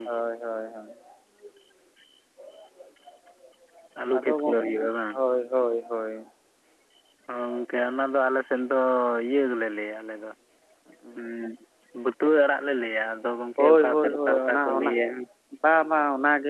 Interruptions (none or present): present